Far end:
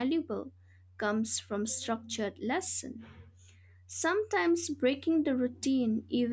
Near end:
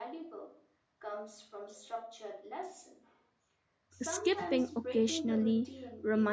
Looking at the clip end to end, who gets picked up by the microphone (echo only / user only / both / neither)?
both